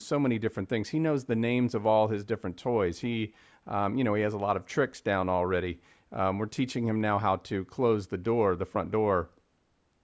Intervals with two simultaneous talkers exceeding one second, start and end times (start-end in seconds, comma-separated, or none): none